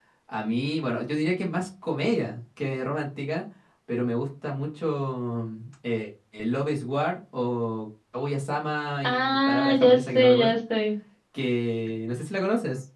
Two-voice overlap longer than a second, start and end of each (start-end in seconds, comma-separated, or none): 9.0-10.6